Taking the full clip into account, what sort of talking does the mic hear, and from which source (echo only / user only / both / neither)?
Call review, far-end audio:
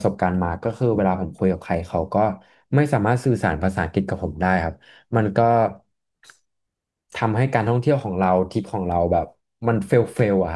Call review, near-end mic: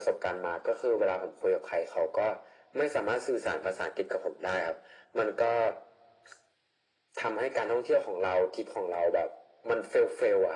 echo only